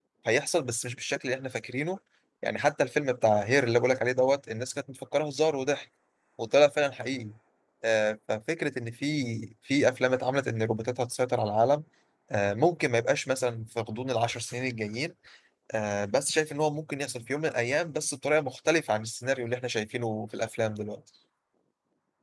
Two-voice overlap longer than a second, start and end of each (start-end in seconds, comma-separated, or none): none